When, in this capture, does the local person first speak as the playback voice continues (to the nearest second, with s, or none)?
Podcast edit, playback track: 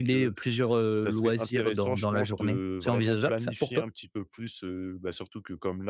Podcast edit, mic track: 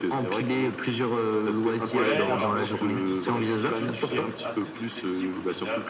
2 s